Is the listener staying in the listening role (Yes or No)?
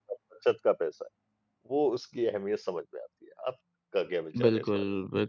No